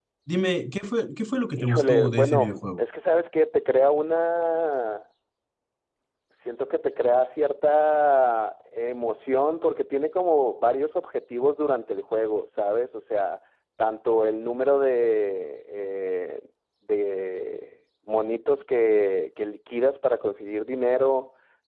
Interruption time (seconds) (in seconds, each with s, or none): 1.6 s